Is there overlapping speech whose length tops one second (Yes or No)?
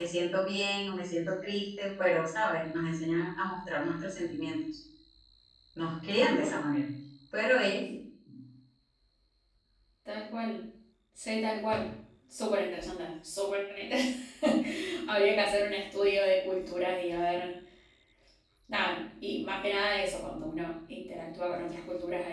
No